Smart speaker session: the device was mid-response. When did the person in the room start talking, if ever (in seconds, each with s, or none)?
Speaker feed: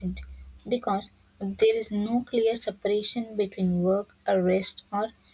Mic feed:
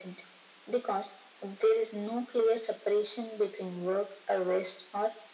none